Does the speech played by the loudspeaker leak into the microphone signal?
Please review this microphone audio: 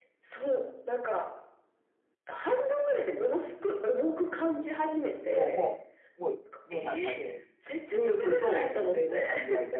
Yes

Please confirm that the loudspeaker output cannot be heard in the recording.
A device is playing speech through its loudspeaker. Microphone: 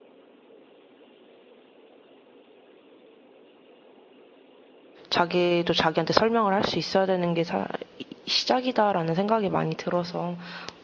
Yes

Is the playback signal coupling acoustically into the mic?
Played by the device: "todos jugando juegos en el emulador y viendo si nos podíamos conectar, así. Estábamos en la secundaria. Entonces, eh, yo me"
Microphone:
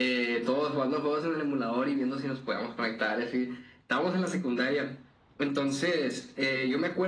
Yes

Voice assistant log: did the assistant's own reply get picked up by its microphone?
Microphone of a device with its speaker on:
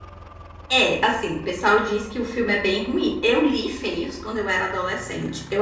No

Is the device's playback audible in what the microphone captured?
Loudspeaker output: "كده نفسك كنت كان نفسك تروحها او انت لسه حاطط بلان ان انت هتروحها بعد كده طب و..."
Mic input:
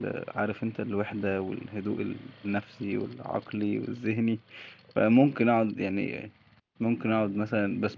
No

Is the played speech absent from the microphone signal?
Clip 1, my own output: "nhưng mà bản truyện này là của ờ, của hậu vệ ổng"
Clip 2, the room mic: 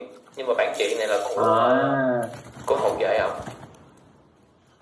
No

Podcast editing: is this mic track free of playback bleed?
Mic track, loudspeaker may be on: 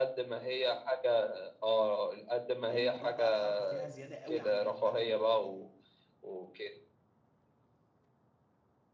No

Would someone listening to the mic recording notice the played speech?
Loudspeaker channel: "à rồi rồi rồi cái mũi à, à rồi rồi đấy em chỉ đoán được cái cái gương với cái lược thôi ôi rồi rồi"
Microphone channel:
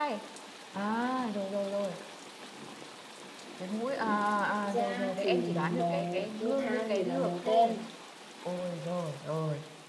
Yes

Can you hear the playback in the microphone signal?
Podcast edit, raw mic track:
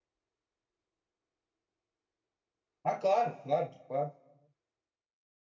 No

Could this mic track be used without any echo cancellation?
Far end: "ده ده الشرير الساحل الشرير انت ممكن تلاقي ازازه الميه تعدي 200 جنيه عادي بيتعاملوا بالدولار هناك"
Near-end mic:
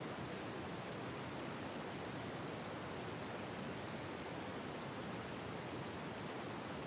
Yes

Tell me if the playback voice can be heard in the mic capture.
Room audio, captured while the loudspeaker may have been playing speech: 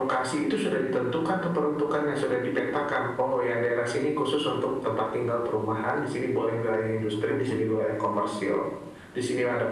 Yes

